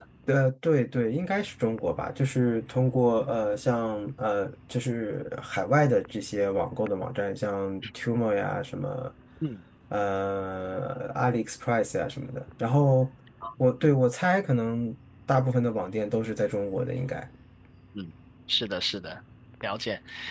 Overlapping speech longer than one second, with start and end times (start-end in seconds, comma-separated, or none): none